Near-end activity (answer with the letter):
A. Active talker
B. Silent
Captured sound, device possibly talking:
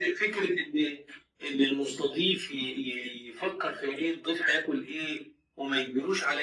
B